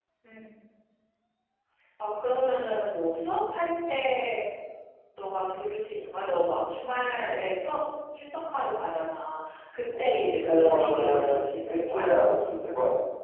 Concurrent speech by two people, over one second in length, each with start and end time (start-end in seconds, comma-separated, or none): 10.0-12.1